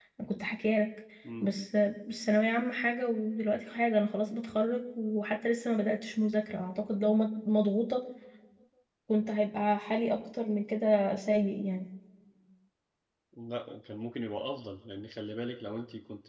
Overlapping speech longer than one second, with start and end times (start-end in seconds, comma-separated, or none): none